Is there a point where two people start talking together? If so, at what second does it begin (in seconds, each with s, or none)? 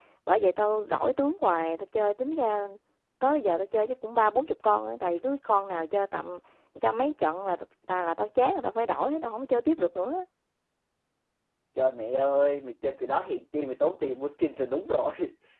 none